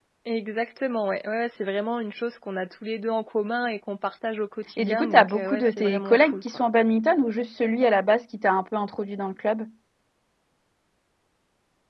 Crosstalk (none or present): present